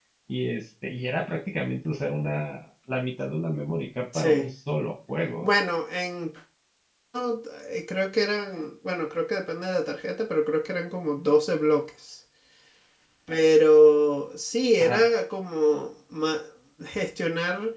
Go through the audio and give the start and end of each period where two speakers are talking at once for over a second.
none

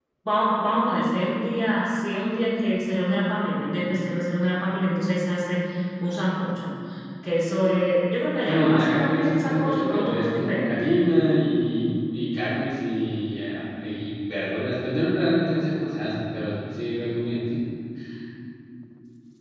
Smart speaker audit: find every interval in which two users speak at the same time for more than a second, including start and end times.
8.4-10.9

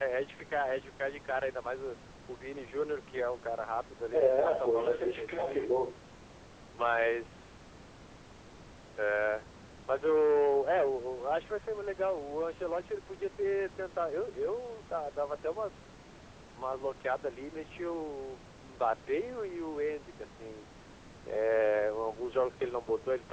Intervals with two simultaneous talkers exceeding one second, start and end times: 4.1-5.8

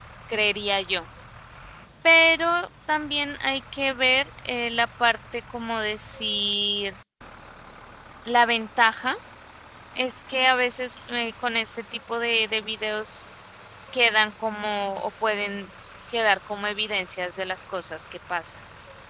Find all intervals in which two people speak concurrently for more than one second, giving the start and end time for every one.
none

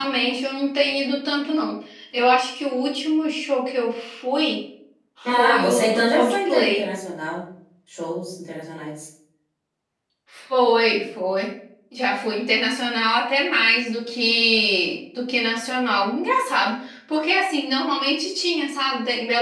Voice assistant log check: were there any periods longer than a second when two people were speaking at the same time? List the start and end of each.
5.2-6.9

